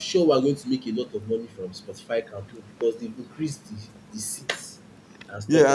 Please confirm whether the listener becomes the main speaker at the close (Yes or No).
Yes